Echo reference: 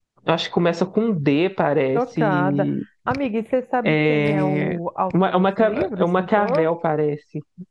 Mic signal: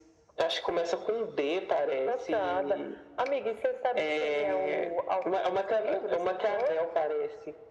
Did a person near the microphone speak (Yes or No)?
No